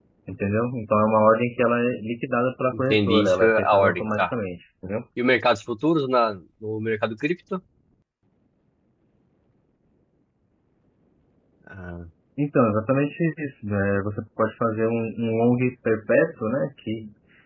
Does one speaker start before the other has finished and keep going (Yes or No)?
Yes